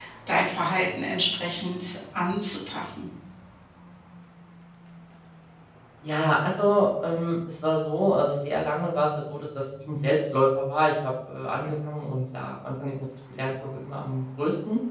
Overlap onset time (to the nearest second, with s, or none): none